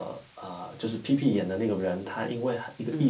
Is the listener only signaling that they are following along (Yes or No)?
Yes